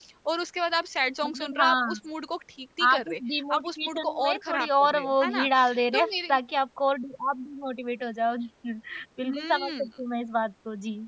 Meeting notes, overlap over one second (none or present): present